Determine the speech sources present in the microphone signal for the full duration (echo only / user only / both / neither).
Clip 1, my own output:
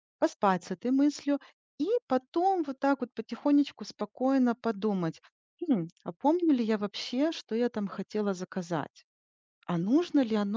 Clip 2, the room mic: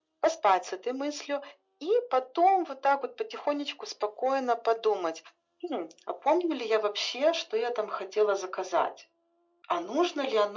echo only